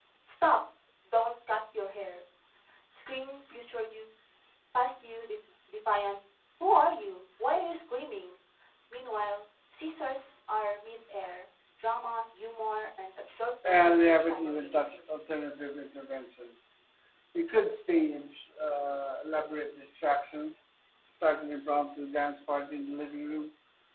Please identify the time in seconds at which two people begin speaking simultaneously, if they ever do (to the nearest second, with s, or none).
14 s